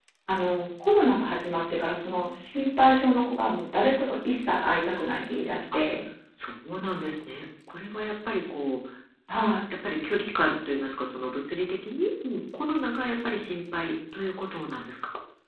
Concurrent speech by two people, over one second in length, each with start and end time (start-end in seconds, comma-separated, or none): none